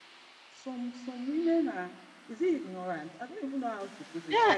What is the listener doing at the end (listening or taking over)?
taking over